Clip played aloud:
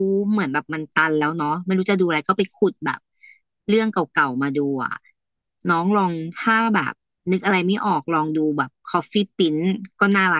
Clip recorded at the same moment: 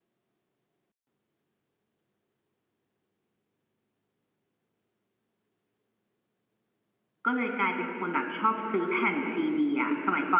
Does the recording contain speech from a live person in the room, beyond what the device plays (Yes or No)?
Yes